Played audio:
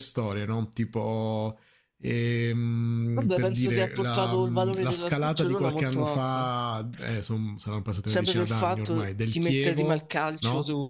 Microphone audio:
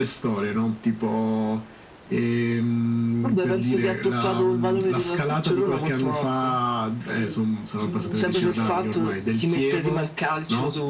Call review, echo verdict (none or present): present